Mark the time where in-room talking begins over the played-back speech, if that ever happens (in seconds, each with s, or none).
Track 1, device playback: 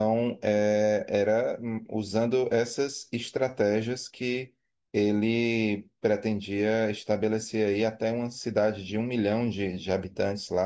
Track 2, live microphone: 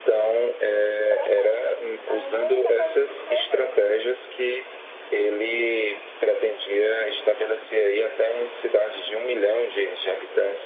1.1 s